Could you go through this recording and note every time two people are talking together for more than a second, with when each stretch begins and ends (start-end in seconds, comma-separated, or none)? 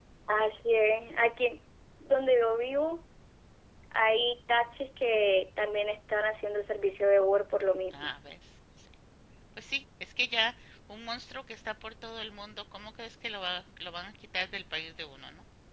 none